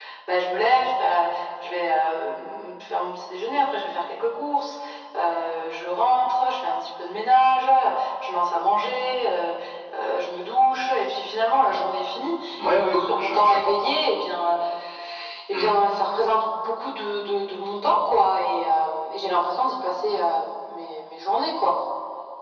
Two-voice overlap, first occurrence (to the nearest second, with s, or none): 13 s